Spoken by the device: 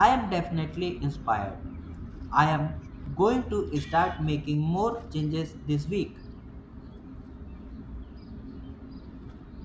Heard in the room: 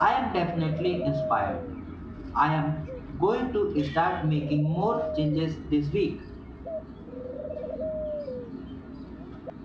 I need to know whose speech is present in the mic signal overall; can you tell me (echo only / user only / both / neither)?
echo only